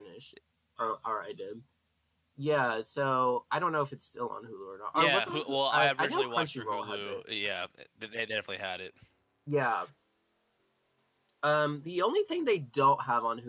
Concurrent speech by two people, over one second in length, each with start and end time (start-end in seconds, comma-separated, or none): 5.0-7.2